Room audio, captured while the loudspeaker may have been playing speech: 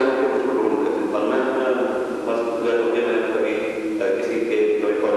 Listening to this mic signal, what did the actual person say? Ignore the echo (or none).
none